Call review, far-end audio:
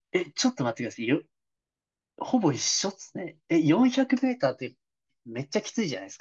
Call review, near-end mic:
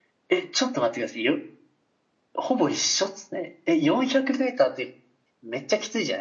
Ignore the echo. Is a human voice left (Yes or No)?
No